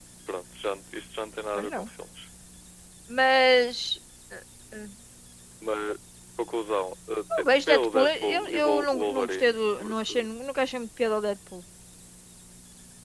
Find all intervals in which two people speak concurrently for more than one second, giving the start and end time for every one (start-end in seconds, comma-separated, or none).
7.4-10.1